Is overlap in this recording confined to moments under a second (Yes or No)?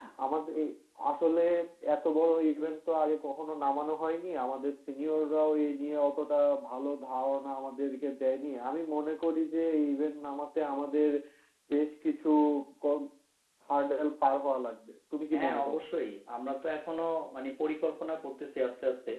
Yes